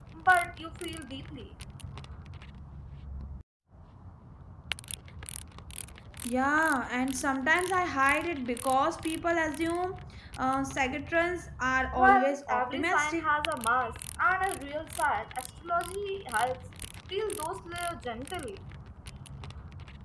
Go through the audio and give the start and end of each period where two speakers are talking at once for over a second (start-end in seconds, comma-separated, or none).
12.0-13.3